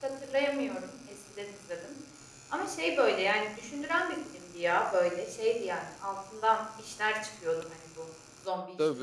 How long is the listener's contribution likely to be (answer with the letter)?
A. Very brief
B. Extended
B